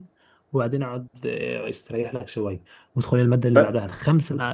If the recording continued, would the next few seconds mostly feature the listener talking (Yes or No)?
No